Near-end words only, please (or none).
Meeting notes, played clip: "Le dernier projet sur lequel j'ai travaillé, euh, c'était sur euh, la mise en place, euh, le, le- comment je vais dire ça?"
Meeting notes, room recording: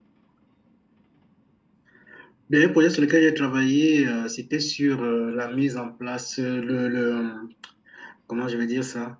none